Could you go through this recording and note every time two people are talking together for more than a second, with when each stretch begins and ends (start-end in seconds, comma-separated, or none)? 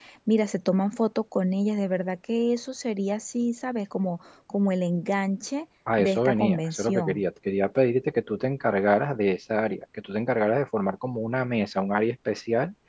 6.0-7.2